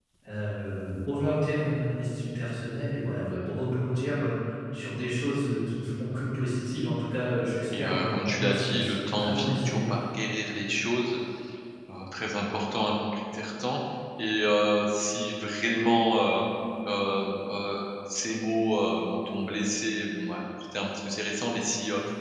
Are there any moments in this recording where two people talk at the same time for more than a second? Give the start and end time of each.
7.8-9.8

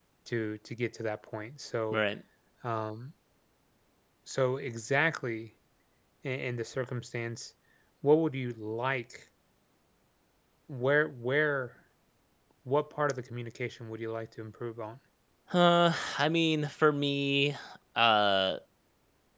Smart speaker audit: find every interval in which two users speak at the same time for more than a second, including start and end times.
none

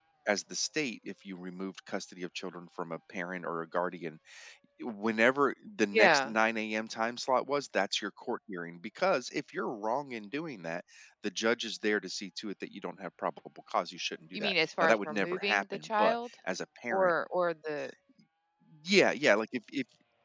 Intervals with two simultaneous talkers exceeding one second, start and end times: 14.3-16.2

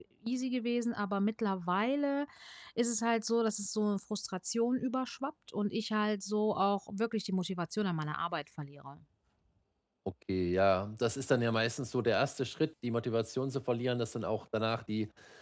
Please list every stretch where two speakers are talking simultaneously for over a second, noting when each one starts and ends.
none

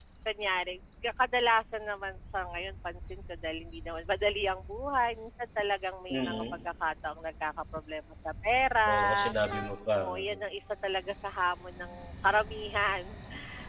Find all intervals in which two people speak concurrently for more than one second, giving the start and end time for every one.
none

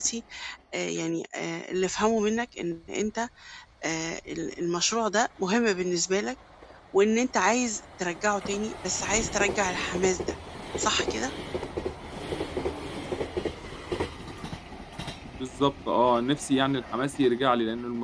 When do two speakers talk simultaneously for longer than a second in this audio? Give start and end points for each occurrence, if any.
none

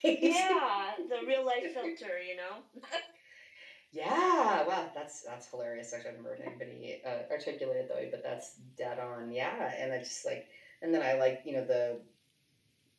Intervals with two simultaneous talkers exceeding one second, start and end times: none

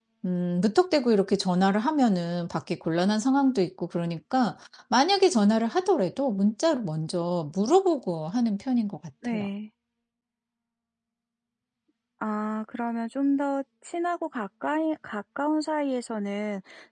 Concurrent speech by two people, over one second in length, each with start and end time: none

